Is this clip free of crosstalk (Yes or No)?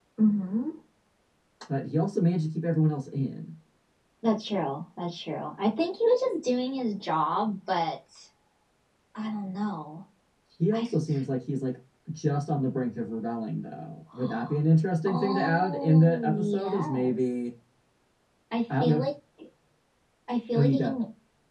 No